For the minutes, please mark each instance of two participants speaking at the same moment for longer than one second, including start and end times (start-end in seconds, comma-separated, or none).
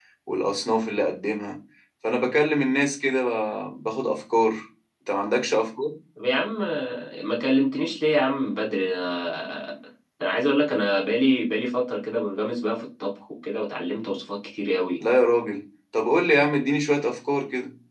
none